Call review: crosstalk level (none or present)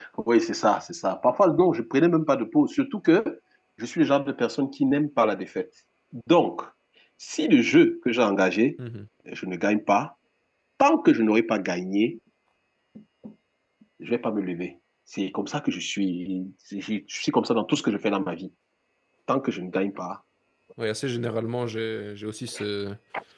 none